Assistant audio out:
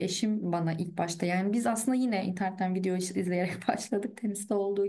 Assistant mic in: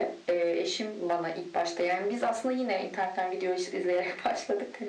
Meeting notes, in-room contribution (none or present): none